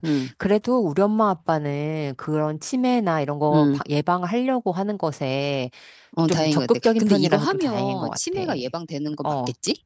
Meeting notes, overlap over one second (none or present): present